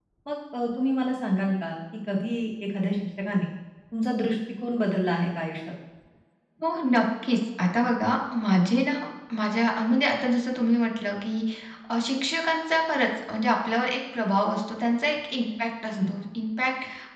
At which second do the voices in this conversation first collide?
none

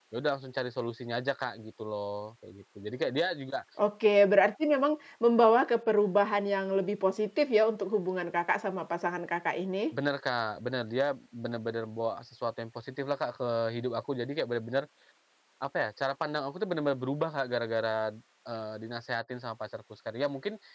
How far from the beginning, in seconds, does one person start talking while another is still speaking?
none

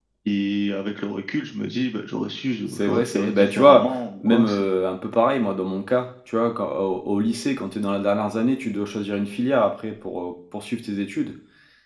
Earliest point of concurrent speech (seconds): 2.7 s

